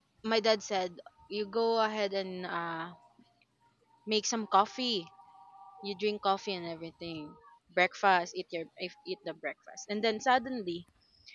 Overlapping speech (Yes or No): No